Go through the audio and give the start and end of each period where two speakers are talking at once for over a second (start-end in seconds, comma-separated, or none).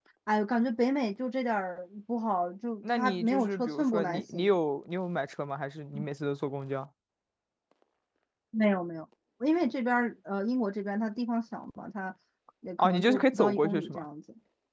2.9-4.5, 12.8-14.0